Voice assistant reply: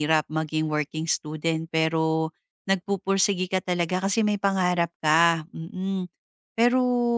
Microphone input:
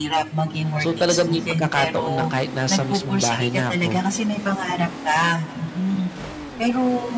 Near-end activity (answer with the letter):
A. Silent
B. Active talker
B